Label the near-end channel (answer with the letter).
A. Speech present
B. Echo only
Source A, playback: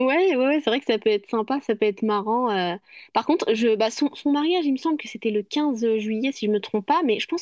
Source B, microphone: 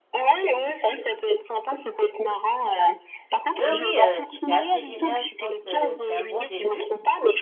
A